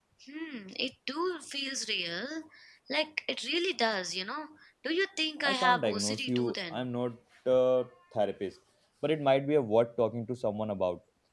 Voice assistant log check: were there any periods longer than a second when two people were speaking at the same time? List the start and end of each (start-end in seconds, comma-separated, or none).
5.5-6.8